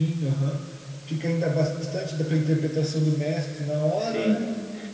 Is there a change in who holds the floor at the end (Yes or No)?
Yes